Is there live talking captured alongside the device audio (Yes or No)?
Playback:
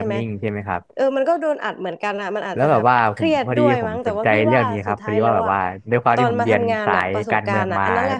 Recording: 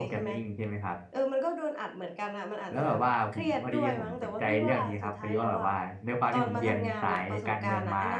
No